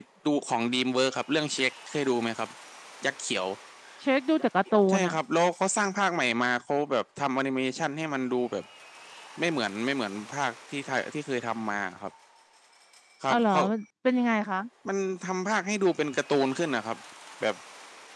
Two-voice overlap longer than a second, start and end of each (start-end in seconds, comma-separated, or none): none